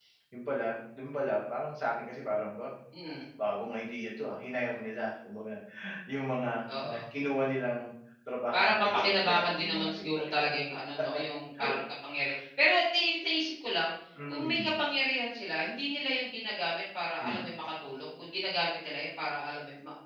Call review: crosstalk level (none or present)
present